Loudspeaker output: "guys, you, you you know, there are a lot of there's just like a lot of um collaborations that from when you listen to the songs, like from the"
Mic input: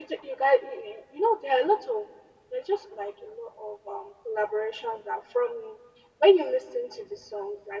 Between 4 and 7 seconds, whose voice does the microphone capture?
echo only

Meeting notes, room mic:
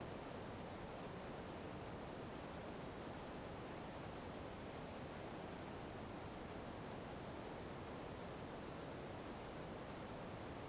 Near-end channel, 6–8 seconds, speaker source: neither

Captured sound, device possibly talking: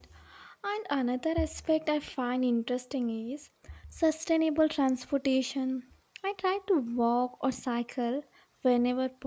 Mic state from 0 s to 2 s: user only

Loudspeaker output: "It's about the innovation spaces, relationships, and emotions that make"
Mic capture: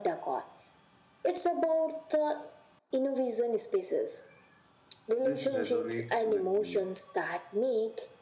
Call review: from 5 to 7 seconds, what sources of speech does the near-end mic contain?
both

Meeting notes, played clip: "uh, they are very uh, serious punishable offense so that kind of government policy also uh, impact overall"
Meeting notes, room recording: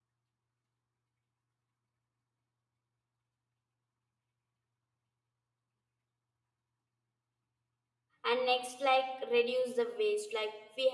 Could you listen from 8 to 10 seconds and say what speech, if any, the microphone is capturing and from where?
user only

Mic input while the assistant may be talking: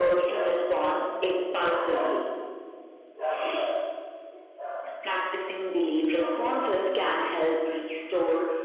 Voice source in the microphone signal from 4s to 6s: echo only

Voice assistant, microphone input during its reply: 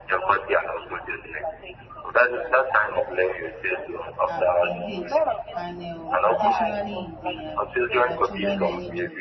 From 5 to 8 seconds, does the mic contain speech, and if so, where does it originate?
both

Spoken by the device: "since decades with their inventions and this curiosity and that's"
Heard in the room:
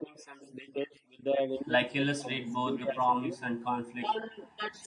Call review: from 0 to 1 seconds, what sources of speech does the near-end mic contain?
echo only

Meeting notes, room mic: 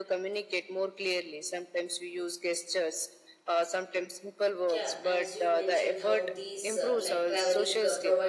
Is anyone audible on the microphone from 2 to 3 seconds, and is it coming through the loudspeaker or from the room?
echo only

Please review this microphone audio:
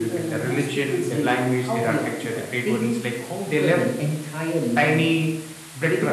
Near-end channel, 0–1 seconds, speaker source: echo only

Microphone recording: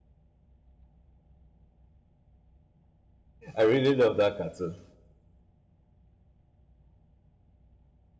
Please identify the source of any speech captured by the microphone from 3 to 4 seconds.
user only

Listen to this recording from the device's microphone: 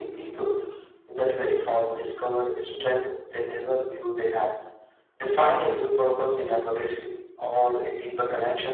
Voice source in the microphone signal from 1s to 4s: echo only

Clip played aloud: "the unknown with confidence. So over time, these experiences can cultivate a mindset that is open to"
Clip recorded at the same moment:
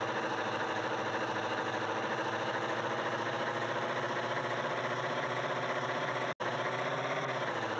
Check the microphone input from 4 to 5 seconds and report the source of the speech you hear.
neither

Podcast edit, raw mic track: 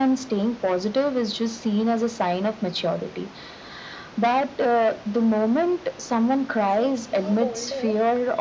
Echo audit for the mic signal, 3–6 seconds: echo only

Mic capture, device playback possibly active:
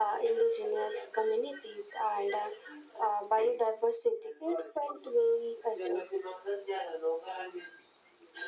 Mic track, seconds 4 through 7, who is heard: echo only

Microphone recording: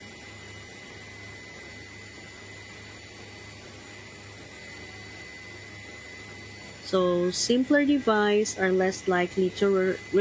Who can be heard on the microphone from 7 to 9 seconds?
user only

